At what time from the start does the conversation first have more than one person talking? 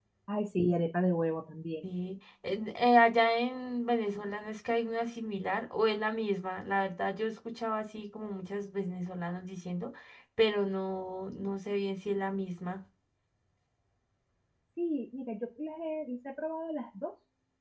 none

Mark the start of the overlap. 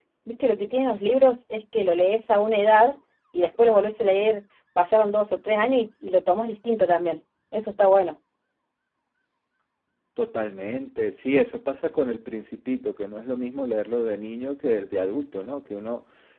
none

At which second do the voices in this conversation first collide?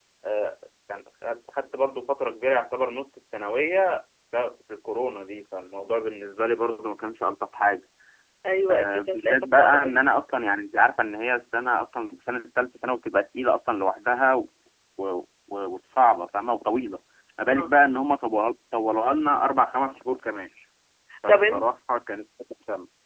8.7 s

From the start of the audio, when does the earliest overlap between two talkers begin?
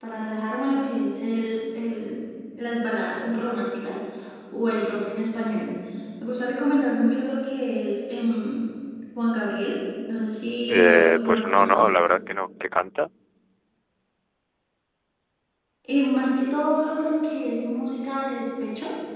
10.7 s

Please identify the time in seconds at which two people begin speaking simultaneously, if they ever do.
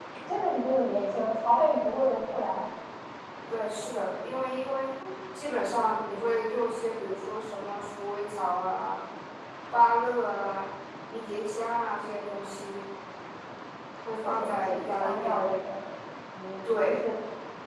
14.2 s

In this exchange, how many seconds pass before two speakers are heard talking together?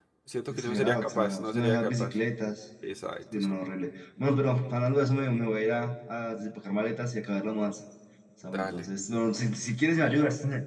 0.5 s

